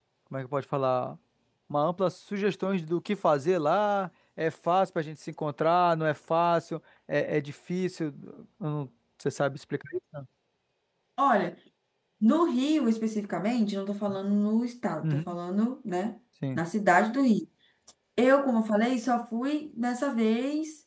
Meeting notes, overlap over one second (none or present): none